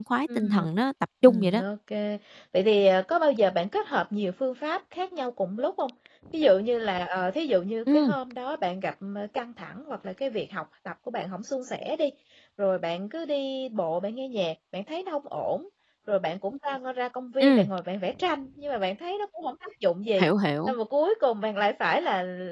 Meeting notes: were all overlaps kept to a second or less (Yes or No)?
Yes